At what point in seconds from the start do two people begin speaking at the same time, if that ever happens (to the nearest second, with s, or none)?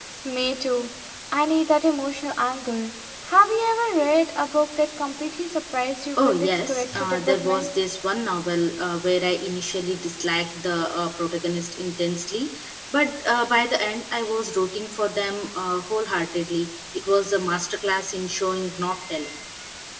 6 s